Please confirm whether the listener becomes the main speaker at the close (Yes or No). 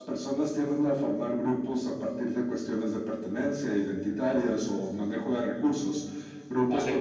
No